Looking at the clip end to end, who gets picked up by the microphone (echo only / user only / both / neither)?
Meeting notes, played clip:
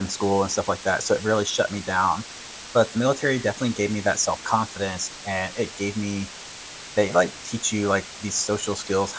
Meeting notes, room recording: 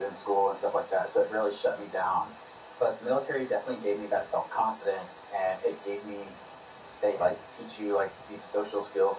echo only